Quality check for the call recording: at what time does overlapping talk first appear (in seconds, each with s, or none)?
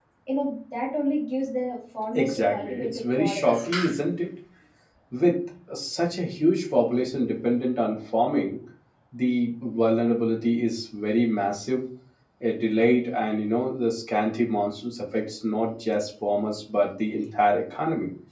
2.1 s